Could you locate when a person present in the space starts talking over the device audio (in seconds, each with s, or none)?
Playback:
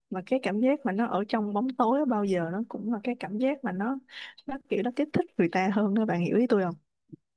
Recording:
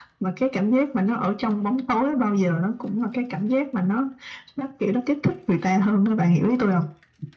none